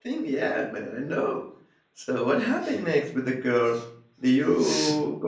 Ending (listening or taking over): listening